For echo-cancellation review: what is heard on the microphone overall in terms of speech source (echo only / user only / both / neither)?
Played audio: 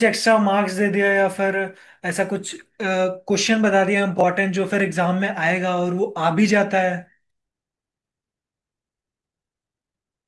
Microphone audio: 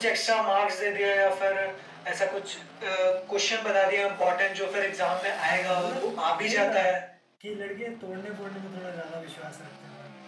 both